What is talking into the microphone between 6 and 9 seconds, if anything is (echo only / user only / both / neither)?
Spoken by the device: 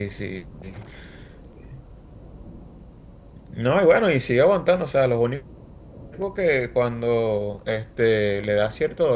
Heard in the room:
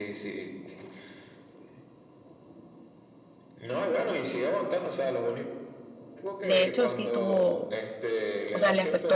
both